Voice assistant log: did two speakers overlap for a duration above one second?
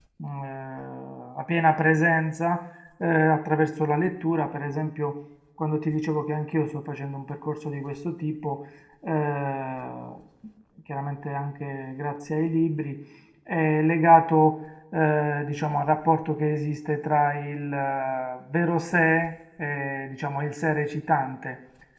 No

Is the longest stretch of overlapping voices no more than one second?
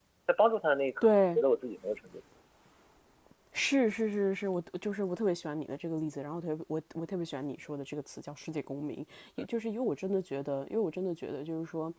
Yes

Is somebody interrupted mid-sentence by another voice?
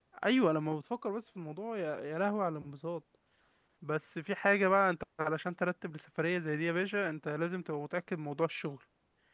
No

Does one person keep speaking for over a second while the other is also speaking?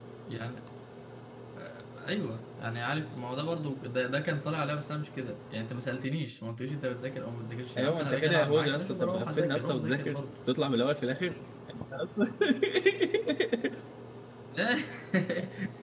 Yes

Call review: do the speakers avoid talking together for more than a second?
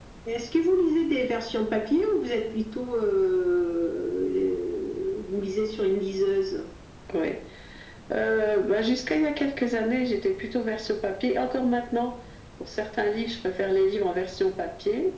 Yes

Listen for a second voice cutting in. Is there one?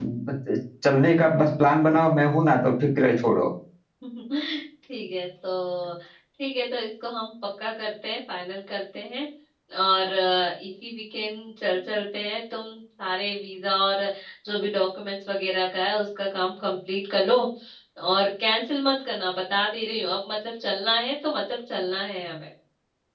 No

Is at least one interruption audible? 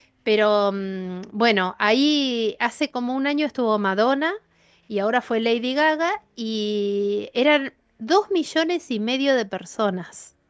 No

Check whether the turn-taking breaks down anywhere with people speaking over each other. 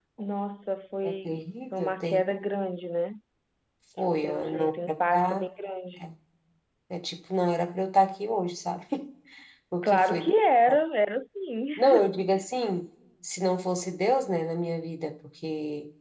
Yes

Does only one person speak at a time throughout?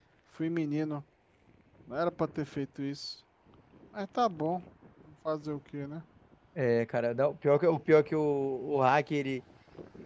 Yes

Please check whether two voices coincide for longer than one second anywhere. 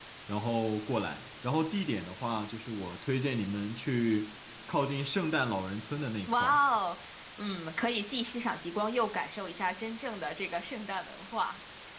No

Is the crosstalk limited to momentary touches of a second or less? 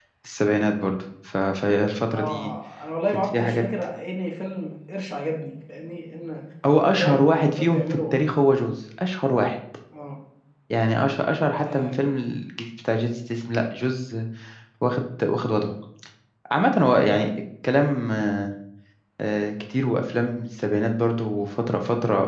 No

